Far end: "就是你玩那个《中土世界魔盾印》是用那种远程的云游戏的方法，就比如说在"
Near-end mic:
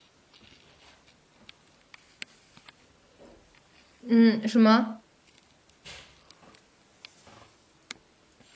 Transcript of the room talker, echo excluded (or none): 嗯，什么？